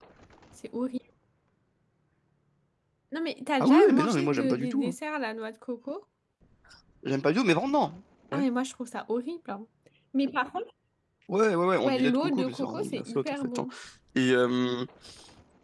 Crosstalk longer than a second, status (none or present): present